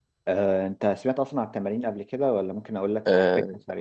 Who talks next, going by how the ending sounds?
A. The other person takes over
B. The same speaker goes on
A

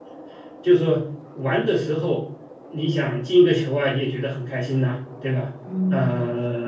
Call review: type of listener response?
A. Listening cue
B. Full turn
B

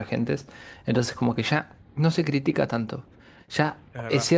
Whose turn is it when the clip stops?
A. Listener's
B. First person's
B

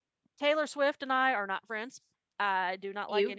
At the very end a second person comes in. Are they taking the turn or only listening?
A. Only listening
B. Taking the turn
A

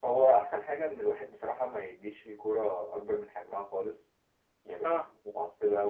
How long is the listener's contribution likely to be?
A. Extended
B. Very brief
B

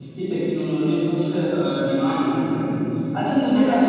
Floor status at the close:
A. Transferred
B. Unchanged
B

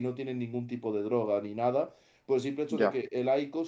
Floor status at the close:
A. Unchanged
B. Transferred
A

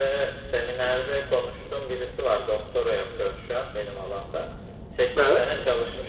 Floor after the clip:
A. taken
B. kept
B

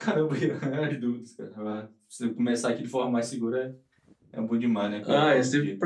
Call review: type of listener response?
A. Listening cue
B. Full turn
B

